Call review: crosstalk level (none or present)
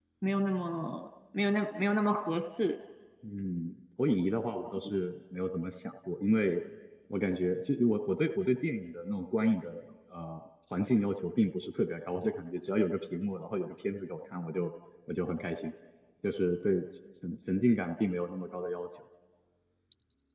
none